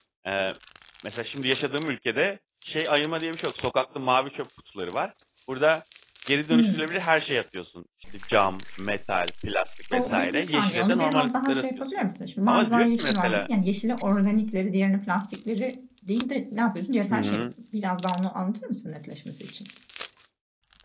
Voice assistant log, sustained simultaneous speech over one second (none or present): present